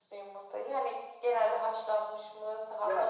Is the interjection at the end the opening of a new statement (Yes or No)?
Yes